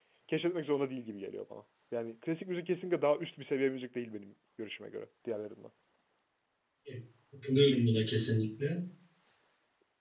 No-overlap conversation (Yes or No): Yes